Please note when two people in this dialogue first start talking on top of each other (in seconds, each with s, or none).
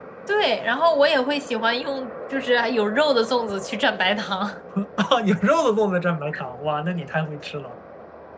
none